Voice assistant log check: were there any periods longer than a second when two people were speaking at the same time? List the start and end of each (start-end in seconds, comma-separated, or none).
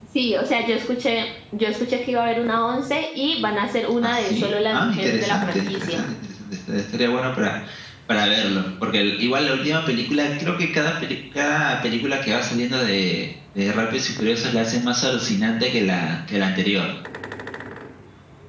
4.0-6.0